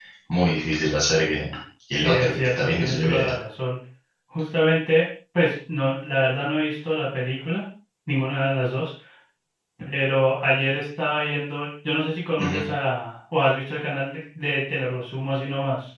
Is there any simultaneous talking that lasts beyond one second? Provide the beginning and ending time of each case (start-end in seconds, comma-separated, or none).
2.0-3.2